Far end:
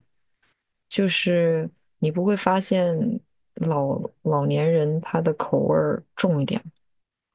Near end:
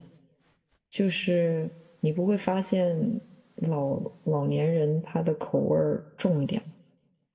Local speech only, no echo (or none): none